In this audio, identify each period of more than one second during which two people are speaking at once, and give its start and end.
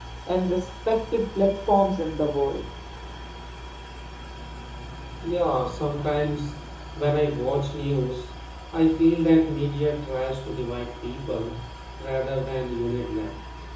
none

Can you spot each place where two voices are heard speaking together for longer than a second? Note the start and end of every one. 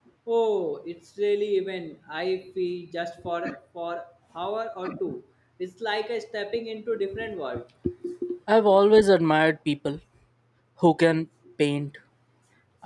none

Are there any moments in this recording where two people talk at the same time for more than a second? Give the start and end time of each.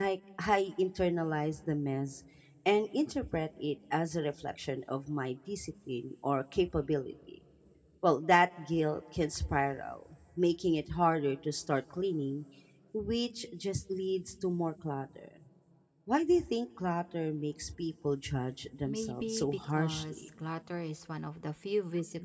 18.8-20.2

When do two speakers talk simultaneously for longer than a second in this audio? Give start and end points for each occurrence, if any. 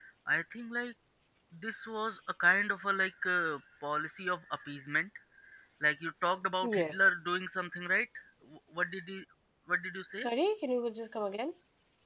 none

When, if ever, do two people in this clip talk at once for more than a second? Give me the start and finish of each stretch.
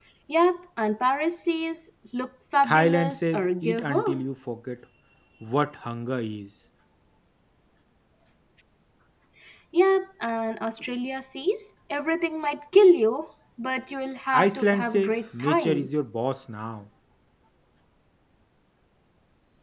2.6-4.2, 14.3-15.9

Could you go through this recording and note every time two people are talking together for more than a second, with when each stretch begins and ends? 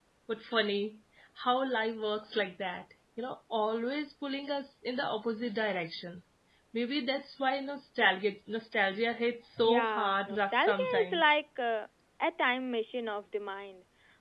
9.6-11.4

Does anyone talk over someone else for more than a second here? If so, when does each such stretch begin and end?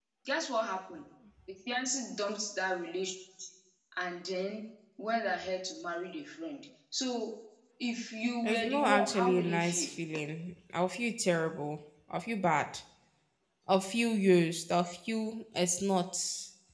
8.4-9.9

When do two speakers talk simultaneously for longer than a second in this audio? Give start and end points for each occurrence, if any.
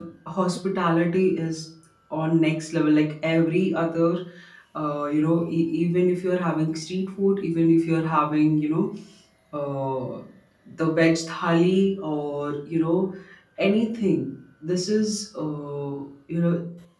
none

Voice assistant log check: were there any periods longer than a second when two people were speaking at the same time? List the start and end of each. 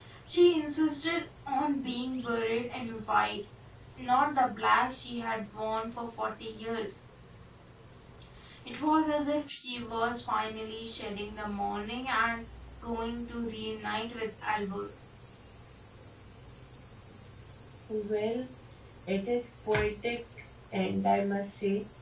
none

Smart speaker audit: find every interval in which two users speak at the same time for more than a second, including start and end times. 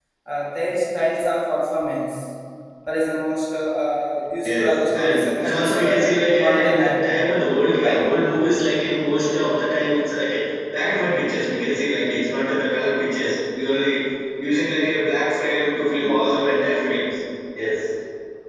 4.4-7.2

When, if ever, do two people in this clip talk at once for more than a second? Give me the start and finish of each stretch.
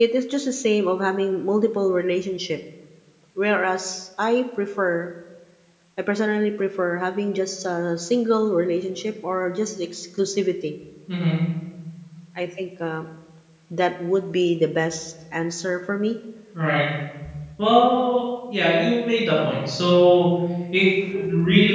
none

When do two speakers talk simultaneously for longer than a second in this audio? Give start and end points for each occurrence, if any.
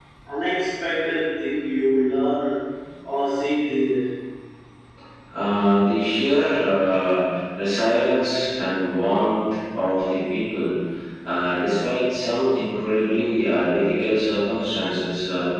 none

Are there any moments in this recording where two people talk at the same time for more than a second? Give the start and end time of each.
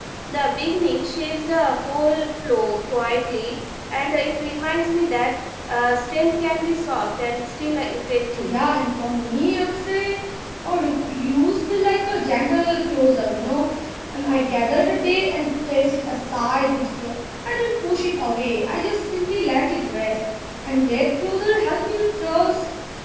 none

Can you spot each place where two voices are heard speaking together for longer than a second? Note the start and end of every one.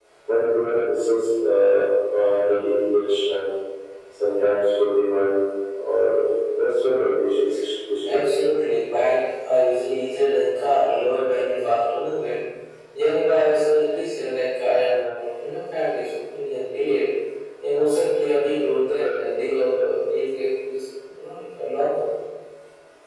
none

